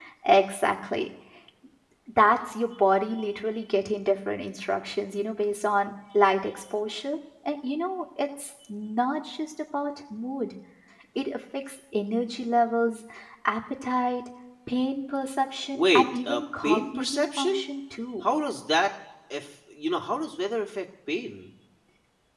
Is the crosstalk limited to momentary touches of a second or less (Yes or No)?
No